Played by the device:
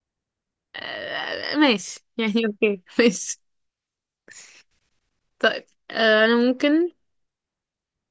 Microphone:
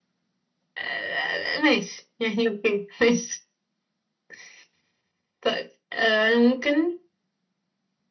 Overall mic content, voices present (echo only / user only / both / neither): echo only